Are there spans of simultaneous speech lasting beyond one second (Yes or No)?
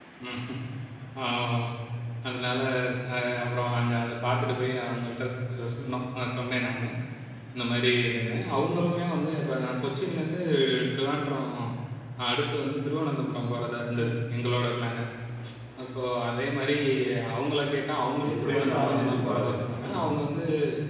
Yes